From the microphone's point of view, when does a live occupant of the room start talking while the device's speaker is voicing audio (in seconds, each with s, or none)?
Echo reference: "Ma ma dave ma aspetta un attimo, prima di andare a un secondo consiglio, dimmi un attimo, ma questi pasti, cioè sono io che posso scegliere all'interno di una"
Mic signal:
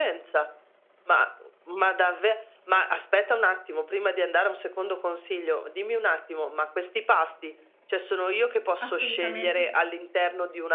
8.8 s